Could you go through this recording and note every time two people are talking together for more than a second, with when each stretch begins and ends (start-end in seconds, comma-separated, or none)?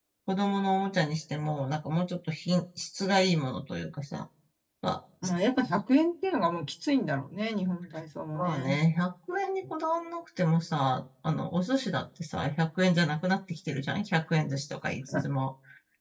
none